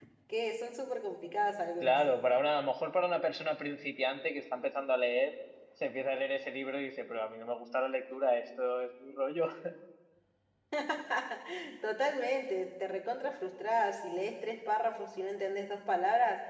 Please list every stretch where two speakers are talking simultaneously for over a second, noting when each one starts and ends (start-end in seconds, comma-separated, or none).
none